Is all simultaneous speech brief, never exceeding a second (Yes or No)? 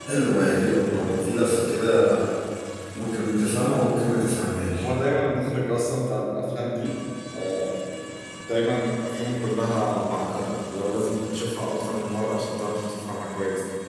Yes